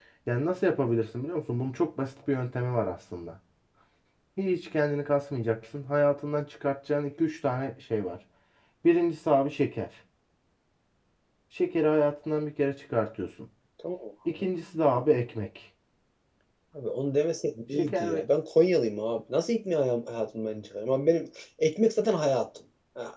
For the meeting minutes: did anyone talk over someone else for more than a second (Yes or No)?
No